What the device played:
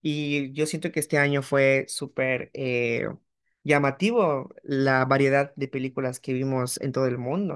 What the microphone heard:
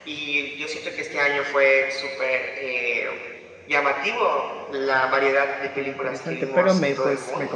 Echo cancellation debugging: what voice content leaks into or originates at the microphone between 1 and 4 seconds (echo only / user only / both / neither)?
echo only